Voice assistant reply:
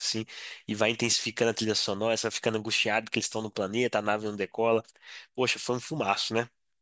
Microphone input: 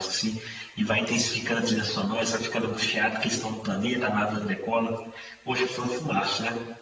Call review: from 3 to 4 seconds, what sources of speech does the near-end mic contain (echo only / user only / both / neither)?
echo only